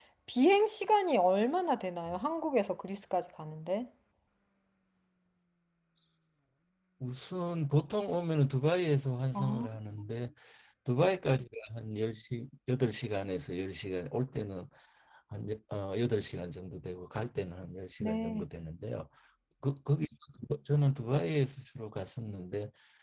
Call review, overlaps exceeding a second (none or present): none